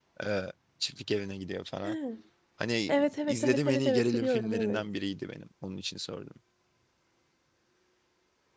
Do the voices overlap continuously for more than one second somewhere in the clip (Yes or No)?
Yes